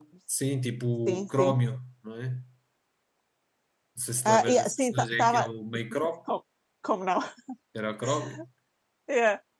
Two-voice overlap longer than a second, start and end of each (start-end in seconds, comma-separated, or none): 4.2-5.5